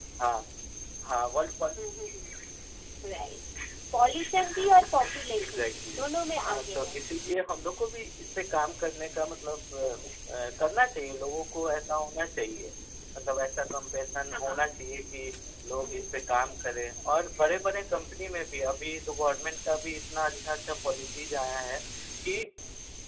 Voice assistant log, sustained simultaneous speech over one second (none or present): present